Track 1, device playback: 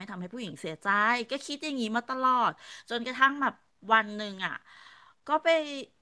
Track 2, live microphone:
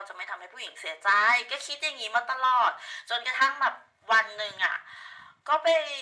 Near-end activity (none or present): none